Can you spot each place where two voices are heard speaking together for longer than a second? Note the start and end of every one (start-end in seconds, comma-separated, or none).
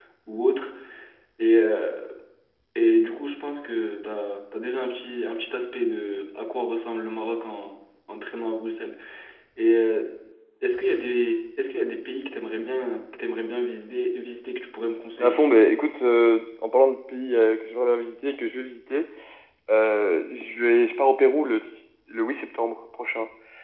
none